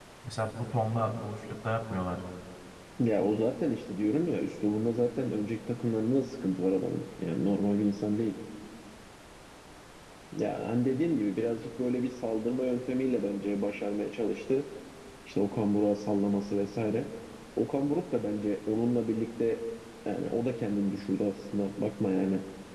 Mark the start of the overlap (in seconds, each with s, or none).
none